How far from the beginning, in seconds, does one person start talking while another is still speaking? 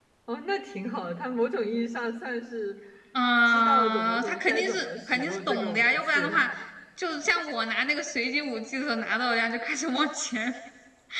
3.5 s

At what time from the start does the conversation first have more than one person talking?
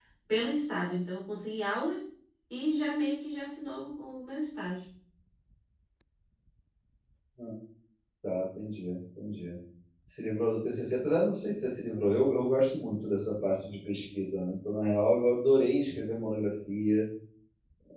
none

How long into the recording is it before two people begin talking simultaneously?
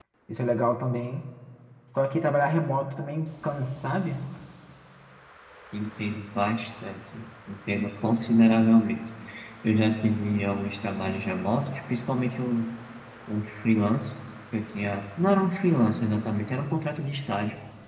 none

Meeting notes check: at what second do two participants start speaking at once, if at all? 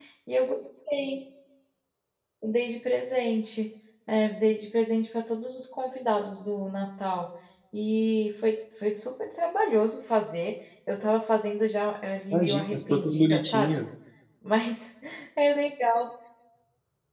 12.3 s

